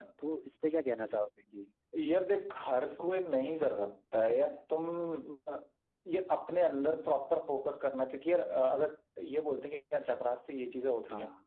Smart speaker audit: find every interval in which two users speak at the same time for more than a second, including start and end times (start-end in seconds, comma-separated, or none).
none